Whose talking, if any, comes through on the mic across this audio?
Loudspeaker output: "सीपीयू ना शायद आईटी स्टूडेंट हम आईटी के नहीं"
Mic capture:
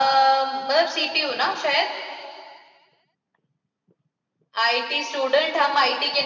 echo only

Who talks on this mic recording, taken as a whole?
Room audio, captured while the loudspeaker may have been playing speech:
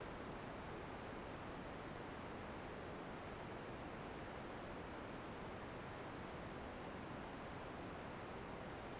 neither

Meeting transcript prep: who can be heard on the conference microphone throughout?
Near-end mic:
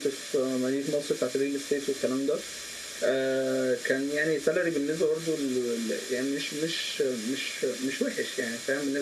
echo only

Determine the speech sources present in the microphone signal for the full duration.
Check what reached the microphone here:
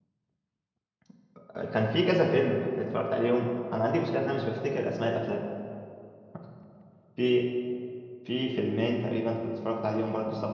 user only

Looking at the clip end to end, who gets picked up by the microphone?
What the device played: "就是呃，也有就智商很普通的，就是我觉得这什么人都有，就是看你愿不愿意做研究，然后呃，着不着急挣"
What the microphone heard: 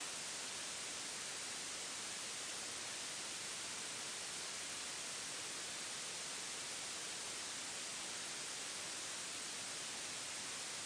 neither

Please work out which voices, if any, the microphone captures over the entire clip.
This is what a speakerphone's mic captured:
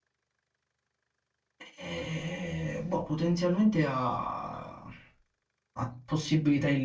user only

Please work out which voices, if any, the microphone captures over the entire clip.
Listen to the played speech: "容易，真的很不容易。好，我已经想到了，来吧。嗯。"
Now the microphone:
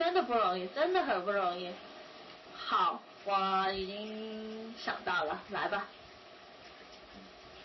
echo only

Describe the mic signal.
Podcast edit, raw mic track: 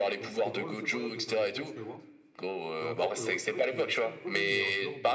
both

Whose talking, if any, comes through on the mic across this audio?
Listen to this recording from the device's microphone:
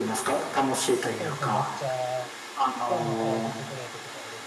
both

